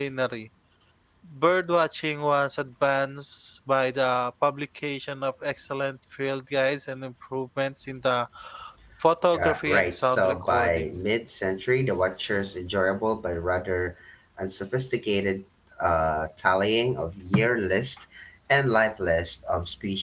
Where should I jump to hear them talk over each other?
9.3 s

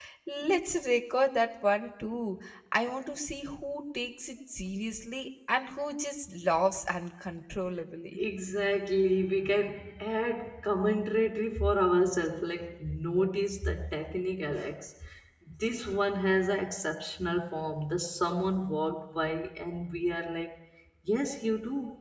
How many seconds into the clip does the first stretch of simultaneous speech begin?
none

